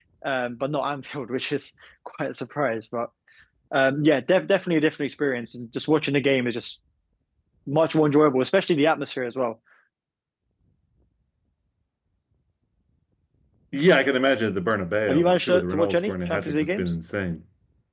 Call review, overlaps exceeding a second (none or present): present